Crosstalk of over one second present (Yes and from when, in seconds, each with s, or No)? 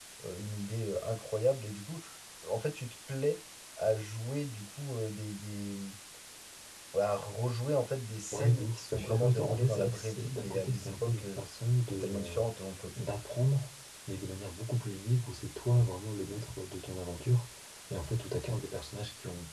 Yes, from 8.3 s